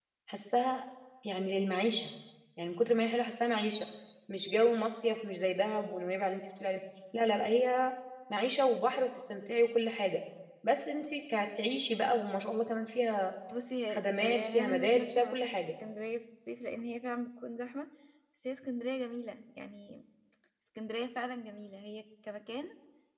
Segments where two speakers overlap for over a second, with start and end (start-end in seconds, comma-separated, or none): 13.9-15.7